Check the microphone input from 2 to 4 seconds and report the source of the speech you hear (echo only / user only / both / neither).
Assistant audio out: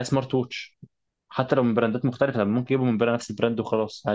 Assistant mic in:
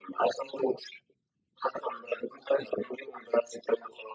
echo only